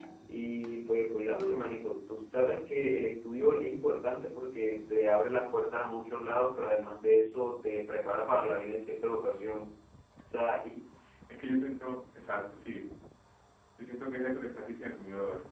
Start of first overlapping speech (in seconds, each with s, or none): none